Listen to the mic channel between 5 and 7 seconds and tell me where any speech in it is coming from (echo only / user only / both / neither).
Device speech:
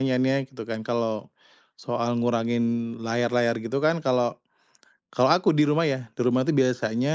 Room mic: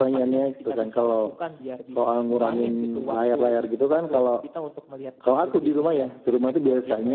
both